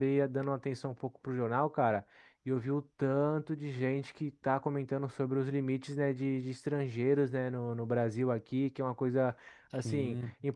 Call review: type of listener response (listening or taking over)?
listening